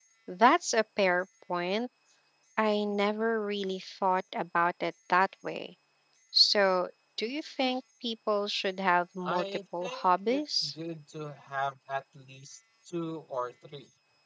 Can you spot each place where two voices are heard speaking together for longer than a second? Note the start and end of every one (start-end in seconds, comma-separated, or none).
9.2-10.7